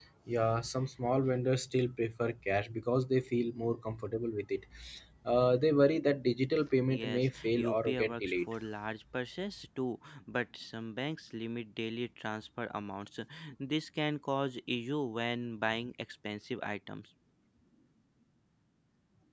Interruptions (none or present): present